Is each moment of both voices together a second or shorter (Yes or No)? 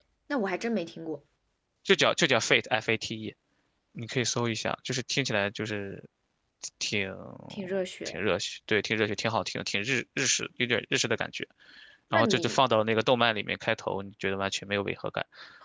Yes